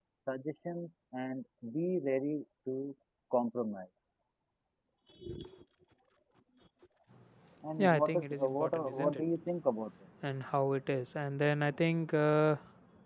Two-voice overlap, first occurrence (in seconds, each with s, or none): 7.8 s